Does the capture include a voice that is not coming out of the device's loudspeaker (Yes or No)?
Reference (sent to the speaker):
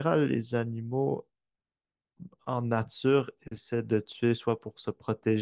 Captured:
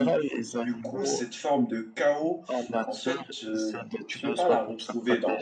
Yes